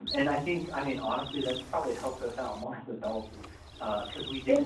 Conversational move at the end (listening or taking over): listening